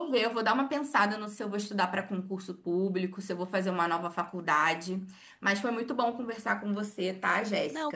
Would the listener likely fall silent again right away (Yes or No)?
No